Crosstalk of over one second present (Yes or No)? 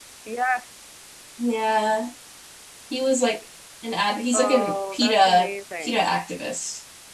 Yes